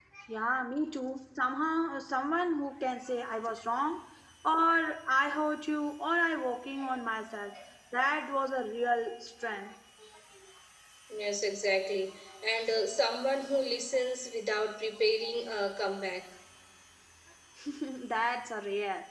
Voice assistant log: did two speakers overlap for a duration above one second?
No

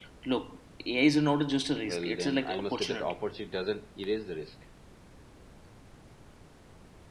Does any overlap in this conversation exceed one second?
Yes, from 1.8 s

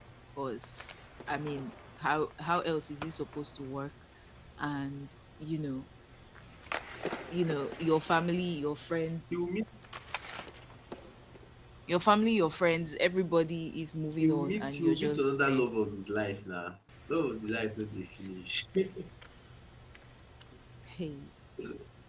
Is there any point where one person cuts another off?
Yes, from 14.2 s

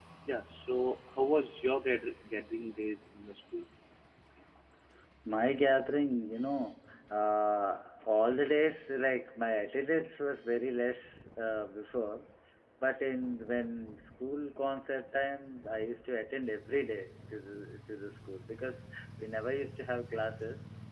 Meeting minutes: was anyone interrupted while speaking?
No

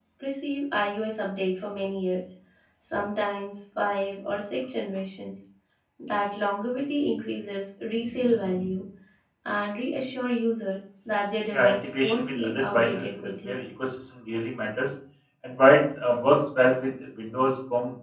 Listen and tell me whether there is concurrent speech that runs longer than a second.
Yes, from 11.5 s

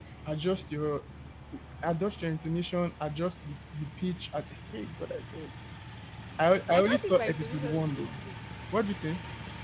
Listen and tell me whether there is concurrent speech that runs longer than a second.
Yes, from 6.7 s

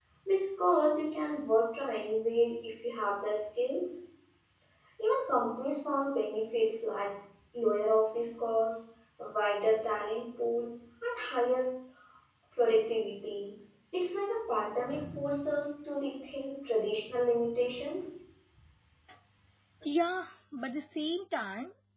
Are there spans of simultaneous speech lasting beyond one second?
No

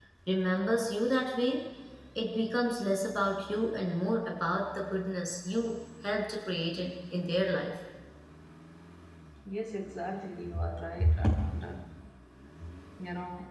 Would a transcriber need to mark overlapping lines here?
No

